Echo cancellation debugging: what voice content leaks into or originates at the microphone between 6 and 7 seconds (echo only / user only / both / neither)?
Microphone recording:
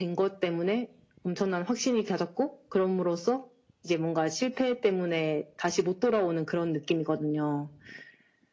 echo only